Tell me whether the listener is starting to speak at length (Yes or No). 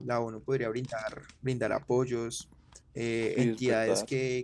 No